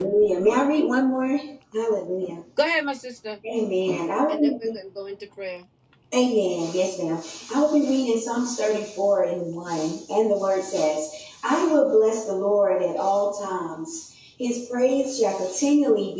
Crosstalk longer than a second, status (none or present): none